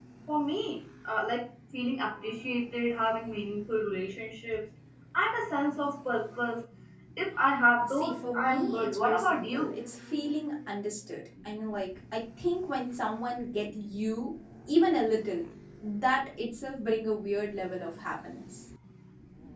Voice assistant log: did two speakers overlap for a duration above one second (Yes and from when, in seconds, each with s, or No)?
Yes, from 7.9 s